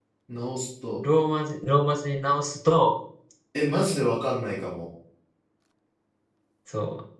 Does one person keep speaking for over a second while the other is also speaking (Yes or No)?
No